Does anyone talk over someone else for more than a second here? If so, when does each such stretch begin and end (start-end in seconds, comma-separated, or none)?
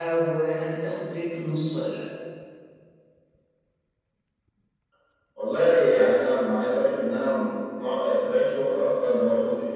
none